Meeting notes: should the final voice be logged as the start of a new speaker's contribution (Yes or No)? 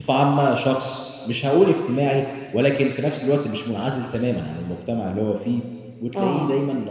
No